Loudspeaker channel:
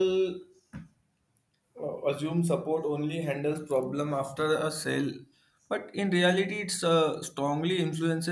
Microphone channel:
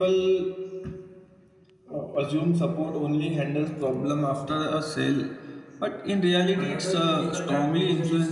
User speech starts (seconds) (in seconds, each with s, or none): 6.5 s